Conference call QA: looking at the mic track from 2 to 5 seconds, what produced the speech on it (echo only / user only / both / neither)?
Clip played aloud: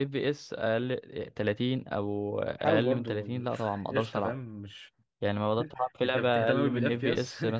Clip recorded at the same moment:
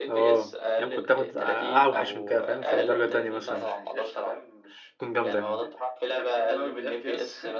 both